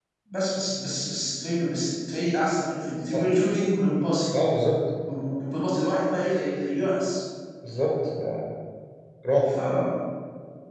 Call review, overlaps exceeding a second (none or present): none